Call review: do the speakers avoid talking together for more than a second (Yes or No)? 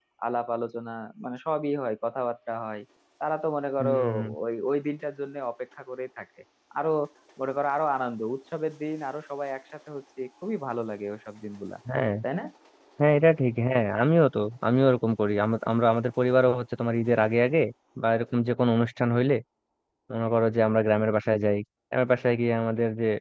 Yes